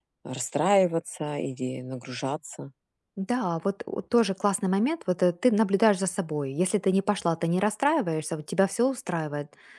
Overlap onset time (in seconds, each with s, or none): none